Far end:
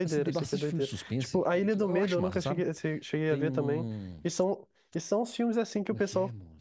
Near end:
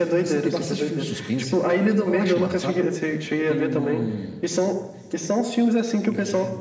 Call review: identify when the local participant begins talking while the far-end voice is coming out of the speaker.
none

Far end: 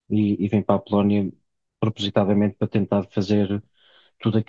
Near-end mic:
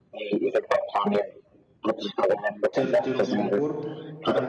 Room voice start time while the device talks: 3 s

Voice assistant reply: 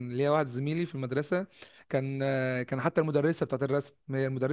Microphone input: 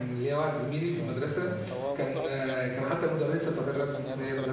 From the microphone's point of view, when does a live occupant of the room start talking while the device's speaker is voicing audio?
1 s

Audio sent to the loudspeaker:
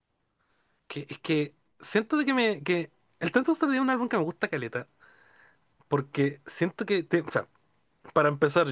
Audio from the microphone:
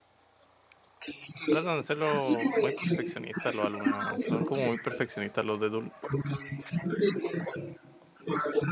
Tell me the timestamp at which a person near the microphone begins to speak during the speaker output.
1 s

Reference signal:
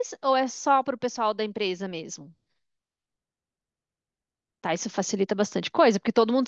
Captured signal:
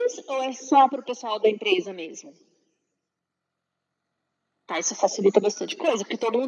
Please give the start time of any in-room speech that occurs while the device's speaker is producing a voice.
none

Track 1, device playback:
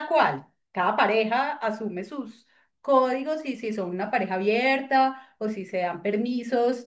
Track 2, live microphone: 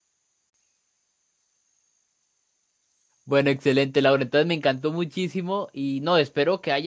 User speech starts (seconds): 3 s

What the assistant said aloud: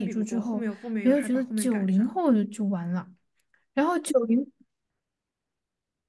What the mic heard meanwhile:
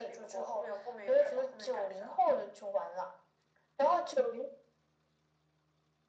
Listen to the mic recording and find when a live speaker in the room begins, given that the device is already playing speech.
none

